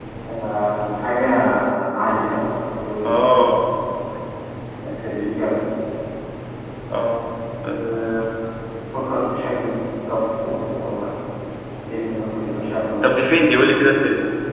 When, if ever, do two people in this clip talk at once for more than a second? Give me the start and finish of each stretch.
none

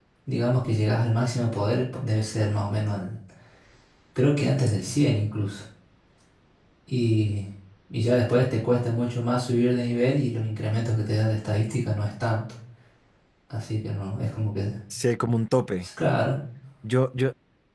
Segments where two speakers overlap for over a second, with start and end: none

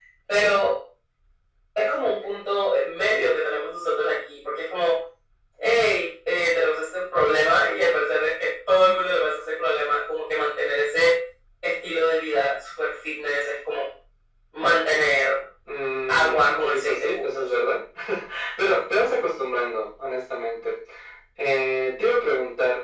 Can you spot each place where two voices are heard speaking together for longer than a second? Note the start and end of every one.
16.1-17.4

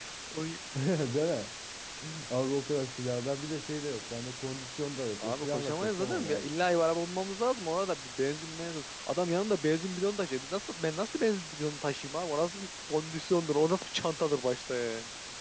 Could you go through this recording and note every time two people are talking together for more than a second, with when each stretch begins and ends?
5.2-6.5

